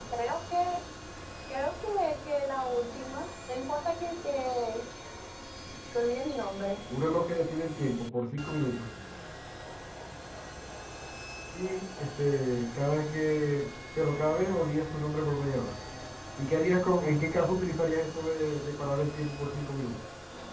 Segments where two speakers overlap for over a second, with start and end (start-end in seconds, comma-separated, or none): none